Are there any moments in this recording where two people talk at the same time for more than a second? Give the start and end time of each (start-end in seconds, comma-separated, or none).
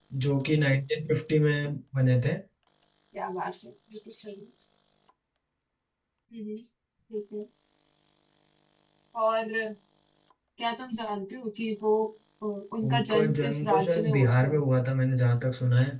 12.8-14.8